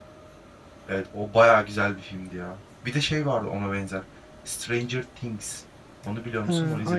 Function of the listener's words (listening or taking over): taking over